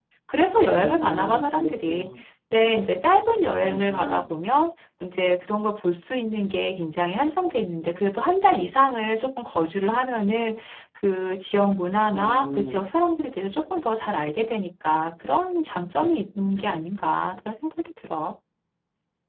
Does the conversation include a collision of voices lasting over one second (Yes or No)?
Yes